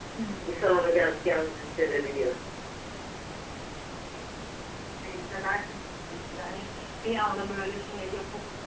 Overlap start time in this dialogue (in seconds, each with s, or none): none